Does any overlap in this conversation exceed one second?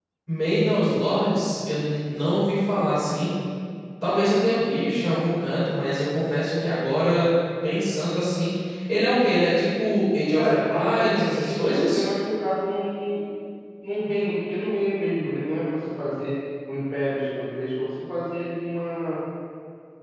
Yes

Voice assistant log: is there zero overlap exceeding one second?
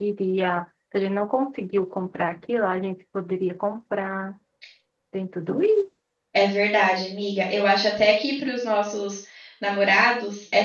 Yes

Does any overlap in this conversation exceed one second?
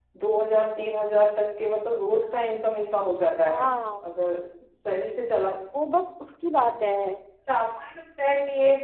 No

